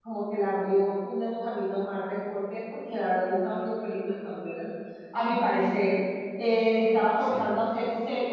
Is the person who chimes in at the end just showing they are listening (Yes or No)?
Yes